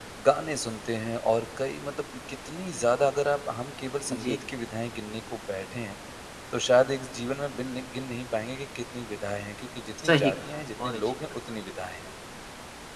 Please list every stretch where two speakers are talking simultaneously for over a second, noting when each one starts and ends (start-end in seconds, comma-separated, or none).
10.1-11.3